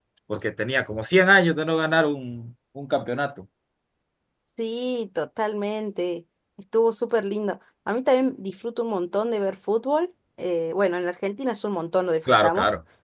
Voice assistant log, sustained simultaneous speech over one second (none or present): none